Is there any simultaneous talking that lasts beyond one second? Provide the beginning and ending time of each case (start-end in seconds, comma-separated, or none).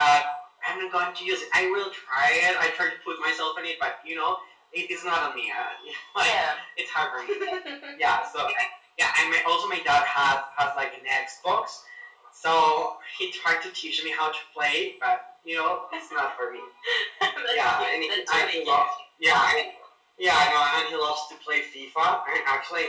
17.5-18.9